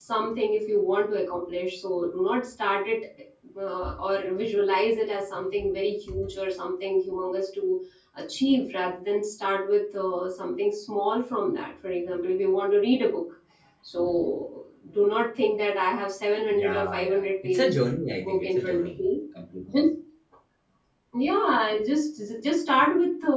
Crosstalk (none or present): present